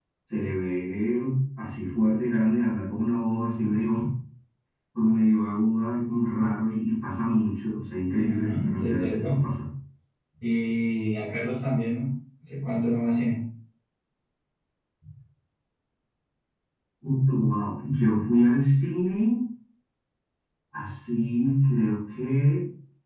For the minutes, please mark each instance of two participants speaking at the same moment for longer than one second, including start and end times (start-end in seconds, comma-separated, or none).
8.1-9.3